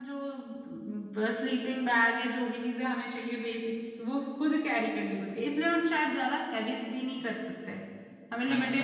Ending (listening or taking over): taking over